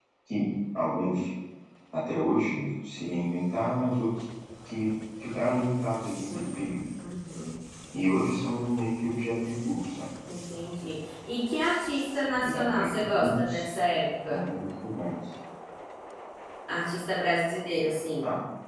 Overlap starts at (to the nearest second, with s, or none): 12 s